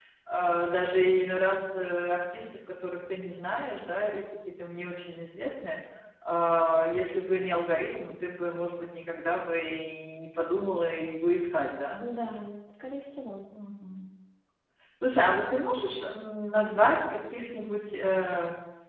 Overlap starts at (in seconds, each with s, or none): none